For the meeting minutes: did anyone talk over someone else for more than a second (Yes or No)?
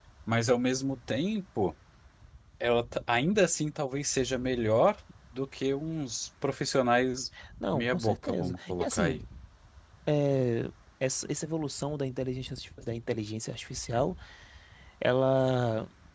Yes